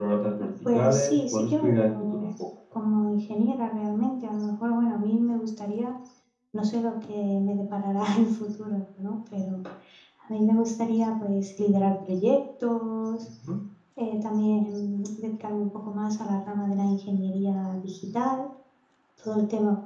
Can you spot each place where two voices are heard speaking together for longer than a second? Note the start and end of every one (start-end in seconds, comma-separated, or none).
0.7-2.3